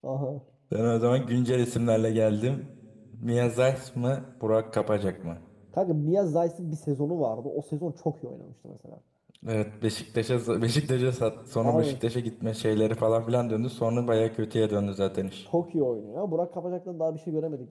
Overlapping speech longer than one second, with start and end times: none

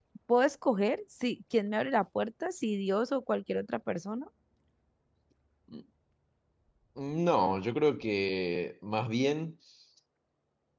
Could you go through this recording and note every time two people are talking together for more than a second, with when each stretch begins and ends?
none

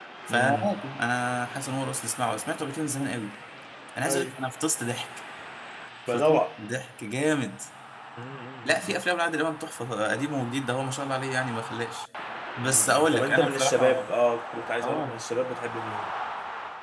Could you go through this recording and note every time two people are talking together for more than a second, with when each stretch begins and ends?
12.6-14.1

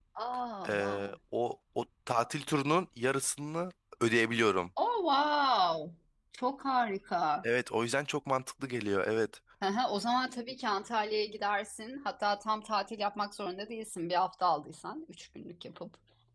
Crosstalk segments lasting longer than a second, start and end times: none

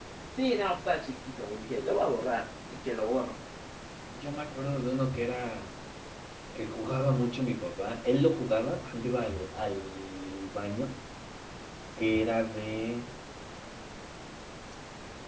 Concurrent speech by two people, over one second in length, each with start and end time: none

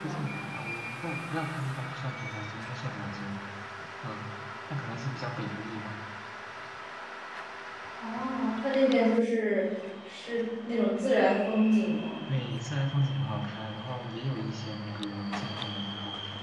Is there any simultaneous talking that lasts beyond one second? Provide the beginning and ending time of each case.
none

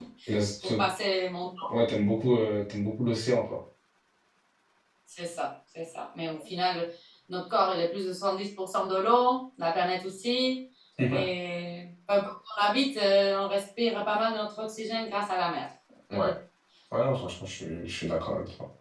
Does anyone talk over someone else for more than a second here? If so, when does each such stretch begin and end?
none

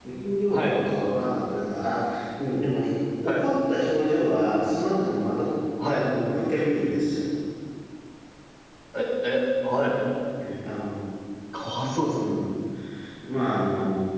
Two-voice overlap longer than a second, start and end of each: none

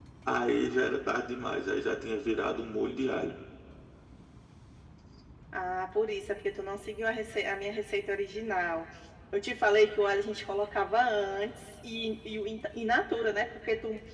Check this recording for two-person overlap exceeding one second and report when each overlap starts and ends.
none

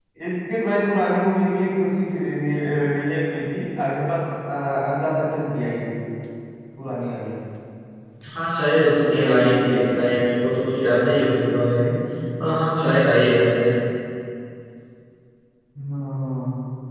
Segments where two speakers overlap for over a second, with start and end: 8.8-10.0

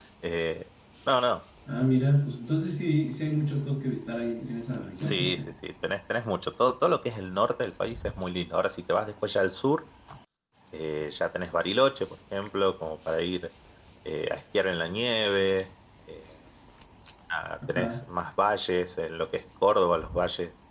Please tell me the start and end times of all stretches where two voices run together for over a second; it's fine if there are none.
none

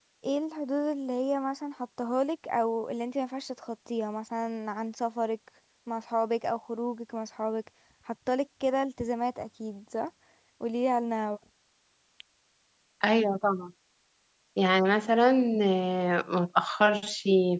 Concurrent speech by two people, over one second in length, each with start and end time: none

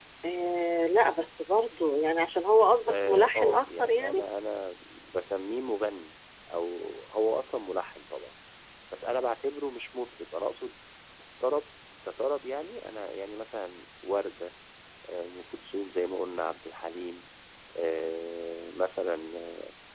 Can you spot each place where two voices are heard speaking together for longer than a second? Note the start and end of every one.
2.9-4.2

